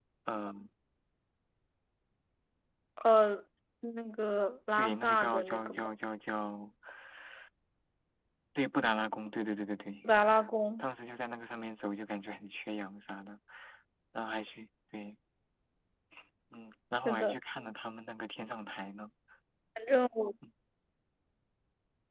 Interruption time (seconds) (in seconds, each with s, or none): 4.7 s